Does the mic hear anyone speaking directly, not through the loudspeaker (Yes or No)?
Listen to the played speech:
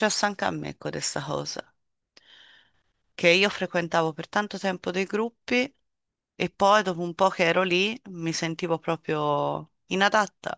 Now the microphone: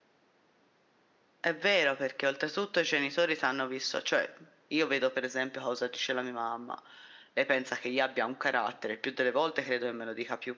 Yes